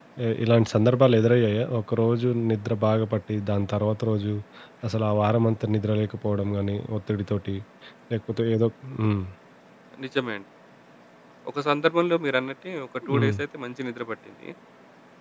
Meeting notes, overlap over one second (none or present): none